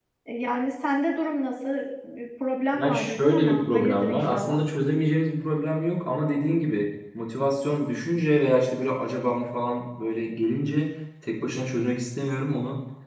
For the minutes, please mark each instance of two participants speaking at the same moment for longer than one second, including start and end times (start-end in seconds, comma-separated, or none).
2.7-4.5